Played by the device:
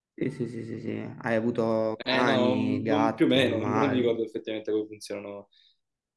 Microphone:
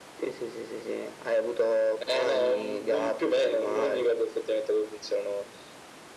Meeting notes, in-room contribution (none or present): none